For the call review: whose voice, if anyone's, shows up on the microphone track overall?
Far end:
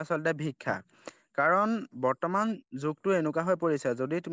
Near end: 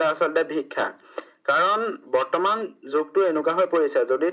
echo only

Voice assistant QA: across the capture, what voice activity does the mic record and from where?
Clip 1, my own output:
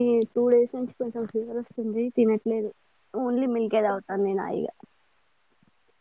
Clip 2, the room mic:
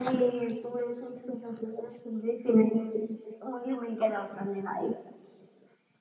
echo only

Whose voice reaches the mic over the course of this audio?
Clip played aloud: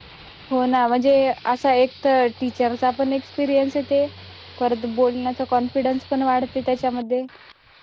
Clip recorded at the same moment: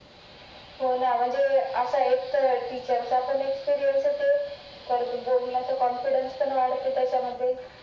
echo only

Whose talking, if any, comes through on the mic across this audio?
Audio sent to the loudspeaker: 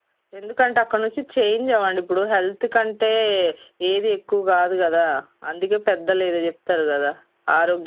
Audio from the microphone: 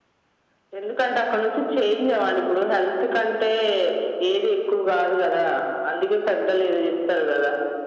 echo only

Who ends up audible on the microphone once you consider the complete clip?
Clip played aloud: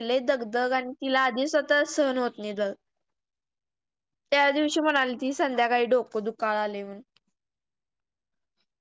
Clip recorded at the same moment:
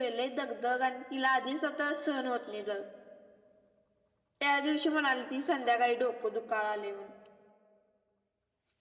echo only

